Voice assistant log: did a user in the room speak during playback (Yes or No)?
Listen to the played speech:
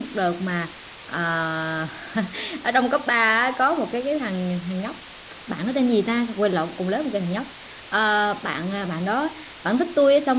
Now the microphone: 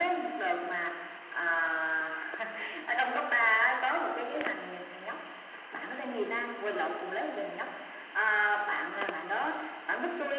No